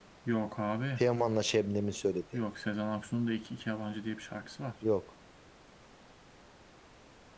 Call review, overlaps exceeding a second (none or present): none